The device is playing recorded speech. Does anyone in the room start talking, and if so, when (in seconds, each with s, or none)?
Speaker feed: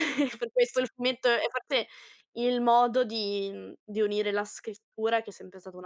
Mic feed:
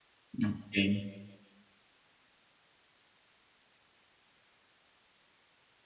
0.4 s